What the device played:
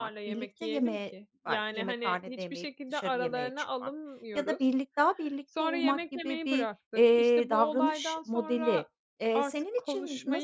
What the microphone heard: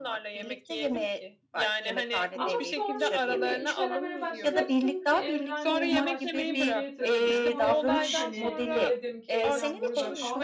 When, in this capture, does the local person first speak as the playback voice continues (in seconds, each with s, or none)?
2.4 s